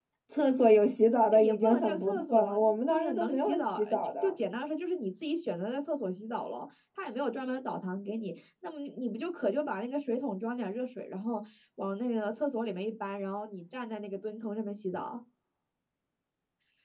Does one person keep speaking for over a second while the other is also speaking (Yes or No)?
Yes